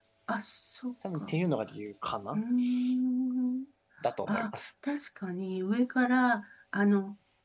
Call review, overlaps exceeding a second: none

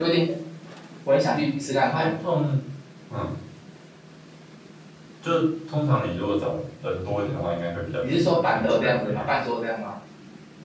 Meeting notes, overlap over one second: present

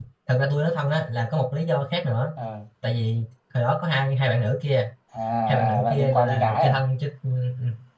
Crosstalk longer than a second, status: present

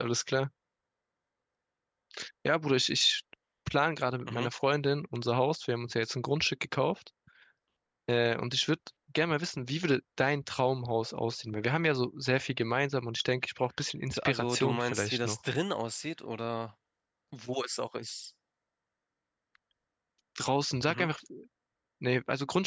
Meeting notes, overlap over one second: present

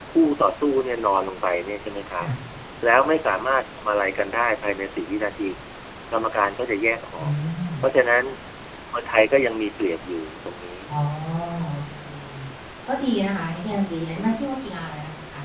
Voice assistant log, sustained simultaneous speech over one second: none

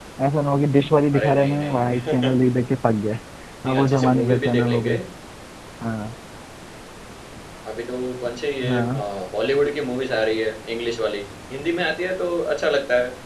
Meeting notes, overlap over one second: present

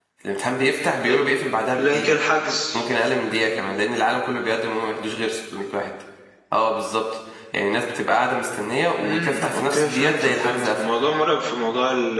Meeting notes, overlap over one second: present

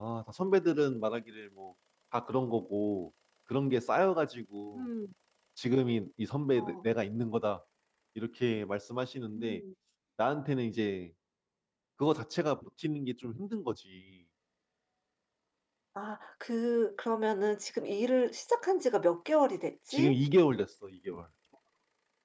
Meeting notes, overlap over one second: none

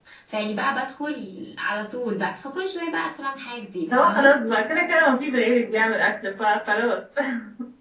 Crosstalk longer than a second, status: none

